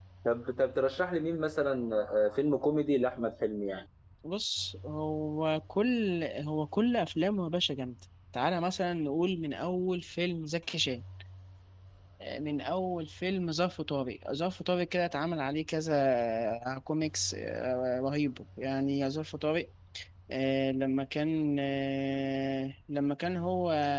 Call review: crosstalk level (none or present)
none